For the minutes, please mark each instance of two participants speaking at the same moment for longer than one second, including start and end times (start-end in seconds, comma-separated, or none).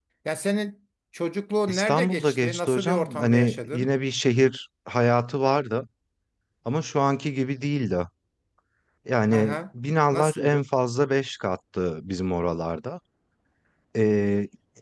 1.7-3.9